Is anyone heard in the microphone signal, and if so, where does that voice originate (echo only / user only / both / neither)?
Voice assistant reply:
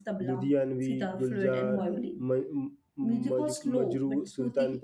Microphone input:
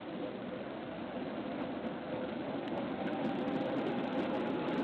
neither